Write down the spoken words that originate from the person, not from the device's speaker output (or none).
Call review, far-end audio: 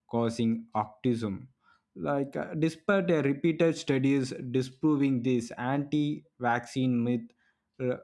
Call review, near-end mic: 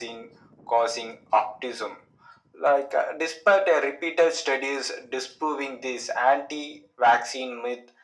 none